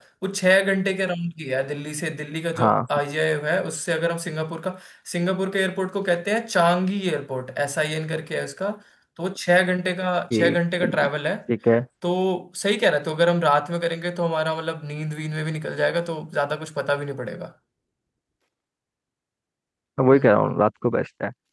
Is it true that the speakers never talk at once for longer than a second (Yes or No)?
Yes